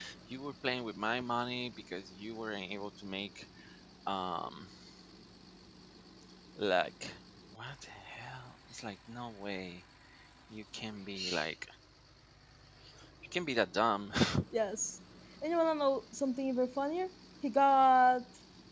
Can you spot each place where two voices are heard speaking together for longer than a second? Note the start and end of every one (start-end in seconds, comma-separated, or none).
none